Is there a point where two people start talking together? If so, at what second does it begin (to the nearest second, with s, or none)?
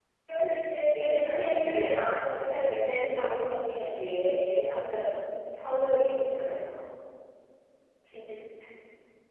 1 s